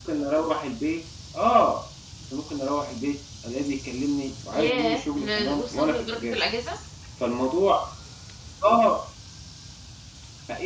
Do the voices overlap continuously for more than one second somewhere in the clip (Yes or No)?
Yes